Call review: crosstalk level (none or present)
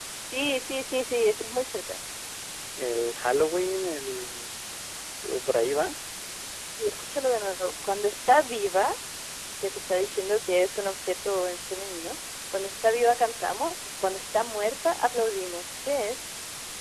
none